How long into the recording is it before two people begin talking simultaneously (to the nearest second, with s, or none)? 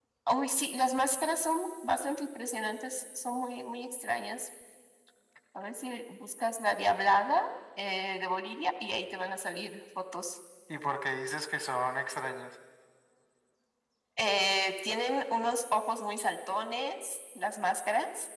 none